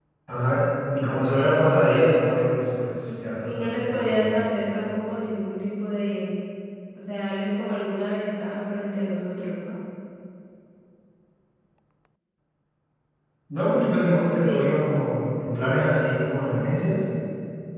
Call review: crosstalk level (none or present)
present